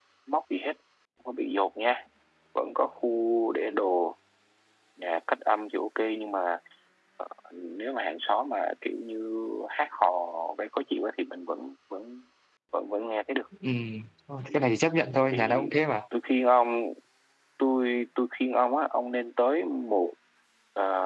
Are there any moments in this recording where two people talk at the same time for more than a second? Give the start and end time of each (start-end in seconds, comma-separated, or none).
none